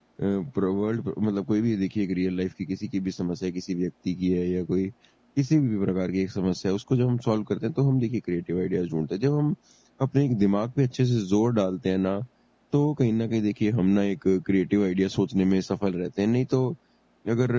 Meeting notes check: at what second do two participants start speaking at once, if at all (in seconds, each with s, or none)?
none